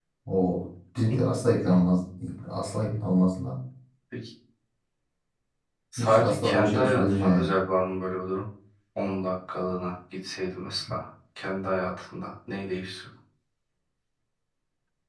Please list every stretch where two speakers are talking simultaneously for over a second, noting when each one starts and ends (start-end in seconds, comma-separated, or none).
6.0-7.6